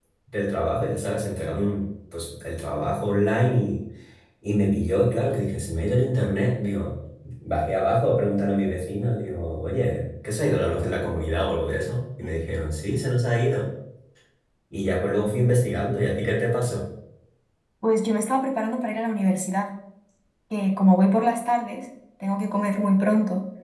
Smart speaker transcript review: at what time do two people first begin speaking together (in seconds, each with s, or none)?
none